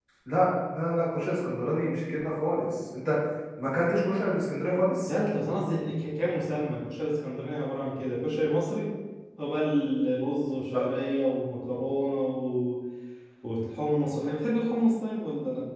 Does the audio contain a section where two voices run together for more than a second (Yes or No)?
No